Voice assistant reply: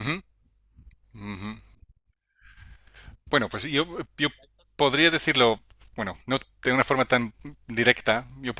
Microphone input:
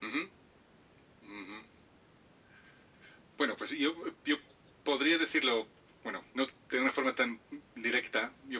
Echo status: present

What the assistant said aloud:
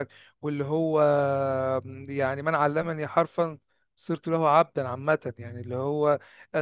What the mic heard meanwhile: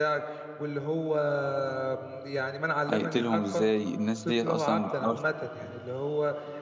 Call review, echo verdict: present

